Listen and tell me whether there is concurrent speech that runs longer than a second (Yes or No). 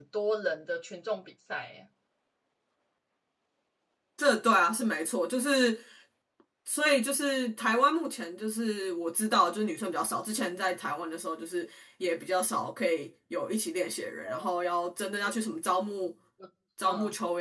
No